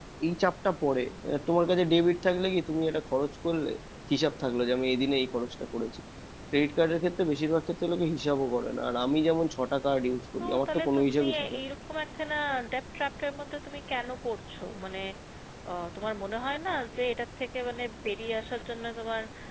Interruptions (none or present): present